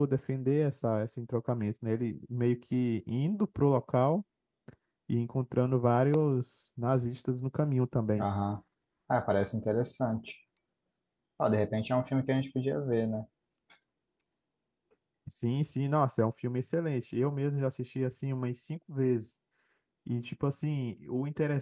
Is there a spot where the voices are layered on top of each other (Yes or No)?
No